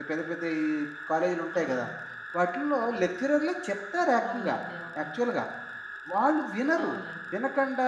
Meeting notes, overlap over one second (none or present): none